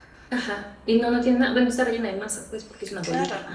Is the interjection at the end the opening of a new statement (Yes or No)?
Yes